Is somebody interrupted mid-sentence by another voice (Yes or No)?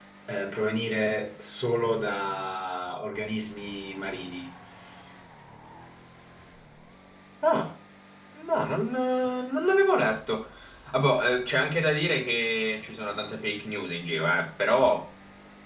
No